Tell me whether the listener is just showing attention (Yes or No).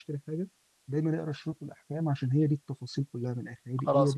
No